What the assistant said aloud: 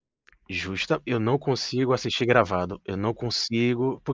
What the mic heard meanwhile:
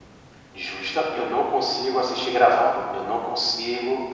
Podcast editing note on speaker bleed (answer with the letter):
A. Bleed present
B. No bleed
A